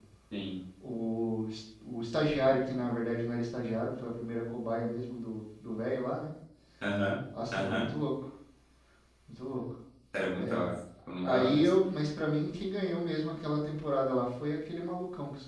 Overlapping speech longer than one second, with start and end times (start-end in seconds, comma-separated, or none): none